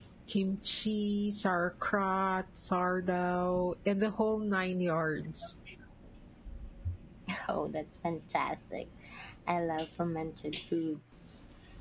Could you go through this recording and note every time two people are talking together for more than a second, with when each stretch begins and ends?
none

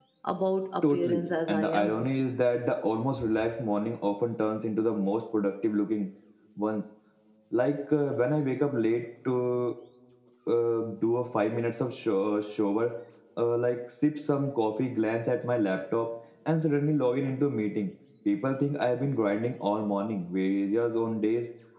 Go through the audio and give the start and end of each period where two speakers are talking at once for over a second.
0.8-2.0

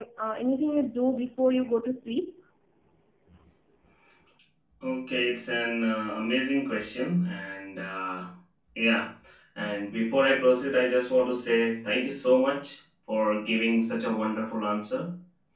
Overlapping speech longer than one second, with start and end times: none

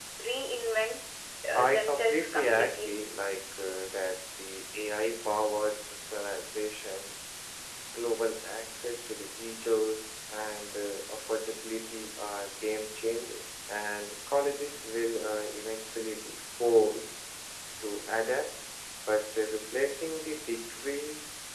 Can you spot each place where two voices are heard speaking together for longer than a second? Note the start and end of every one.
1.5-2.9

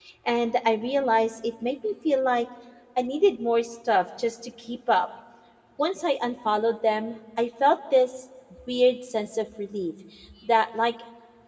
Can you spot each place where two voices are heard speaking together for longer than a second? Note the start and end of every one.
none

